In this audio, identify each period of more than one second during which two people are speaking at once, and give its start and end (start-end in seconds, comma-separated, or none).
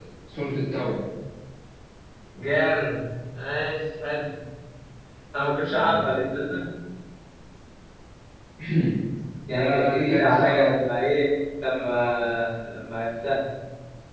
9.5-10.8